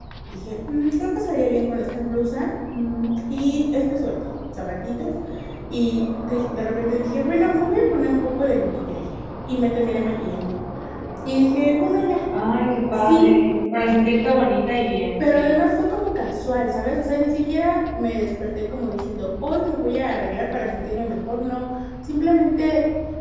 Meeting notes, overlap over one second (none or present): none